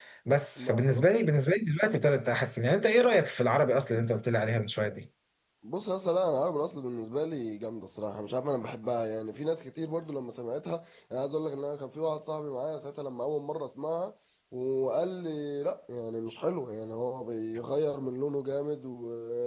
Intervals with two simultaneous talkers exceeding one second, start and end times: none

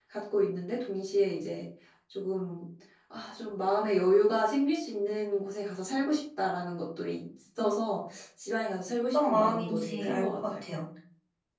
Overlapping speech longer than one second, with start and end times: 9.1-10.5

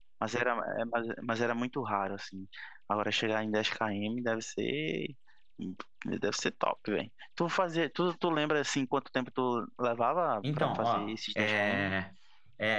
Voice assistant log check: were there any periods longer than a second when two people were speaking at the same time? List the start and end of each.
10.5-11.9

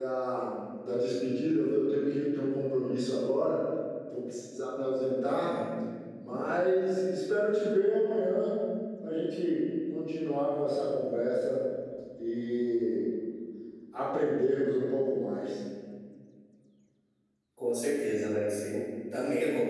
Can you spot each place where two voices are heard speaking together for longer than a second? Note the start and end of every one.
none

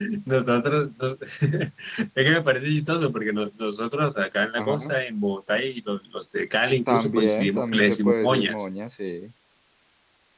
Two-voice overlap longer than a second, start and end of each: 6.9-8.5

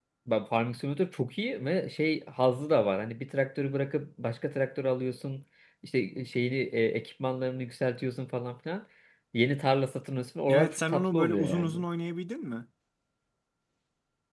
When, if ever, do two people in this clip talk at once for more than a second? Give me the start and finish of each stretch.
10.5-11.8

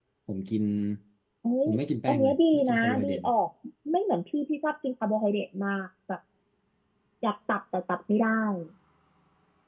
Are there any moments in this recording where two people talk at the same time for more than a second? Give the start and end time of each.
2.1-3.3

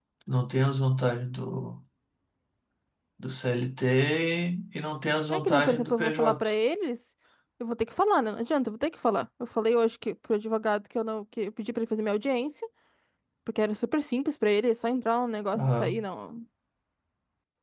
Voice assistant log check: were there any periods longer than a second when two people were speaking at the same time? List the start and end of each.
5.3-6.5

